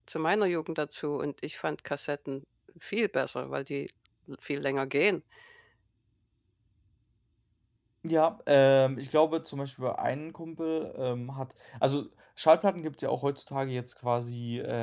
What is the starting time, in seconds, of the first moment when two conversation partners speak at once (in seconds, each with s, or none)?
none